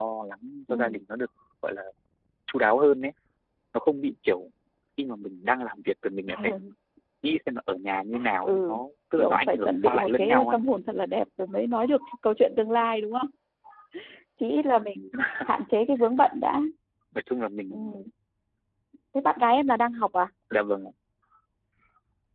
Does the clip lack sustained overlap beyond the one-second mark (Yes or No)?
No